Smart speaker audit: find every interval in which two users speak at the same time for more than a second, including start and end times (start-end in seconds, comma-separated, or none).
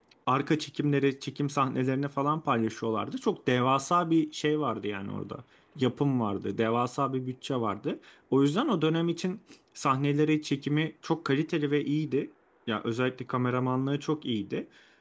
none